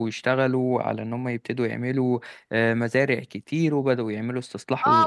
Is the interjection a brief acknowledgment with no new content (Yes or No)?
No